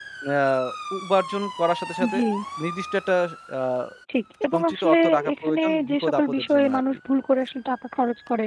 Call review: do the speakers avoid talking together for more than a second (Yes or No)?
No